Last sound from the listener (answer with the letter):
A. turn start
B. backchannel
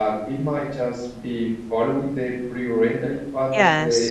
A